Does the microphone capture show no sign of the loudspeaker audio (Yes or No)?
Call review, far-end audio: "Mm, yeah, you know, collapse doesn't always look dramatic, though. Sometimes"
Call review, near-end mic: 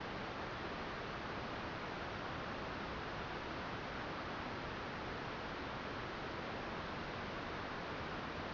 Yes